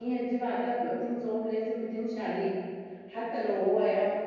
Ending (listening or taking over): listening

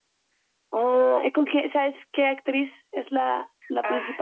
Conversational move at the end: taking over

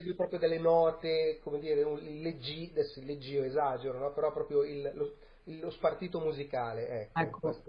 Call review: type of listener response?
taking over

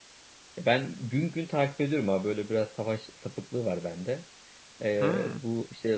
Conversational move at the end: listening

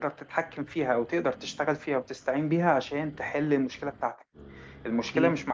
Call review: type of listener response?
listening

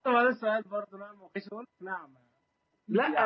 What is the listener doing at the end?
taking over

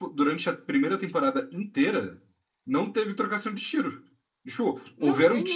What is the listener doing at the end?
listening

